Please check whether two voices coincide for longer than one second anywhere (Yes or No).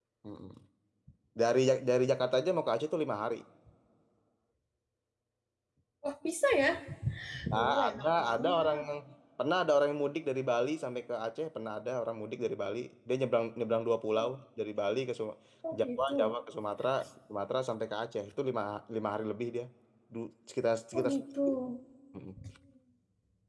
Yes